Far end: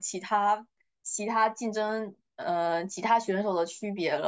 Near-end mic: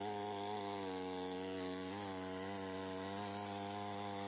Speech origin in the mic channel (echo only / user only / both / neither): neither